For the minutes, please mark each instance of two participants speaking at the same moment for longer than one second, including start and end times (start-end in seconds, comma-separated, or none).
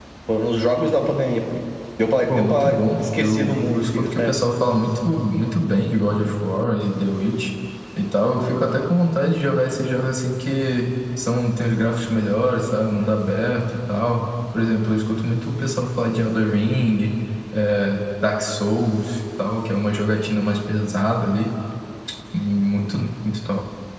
2.3-4.3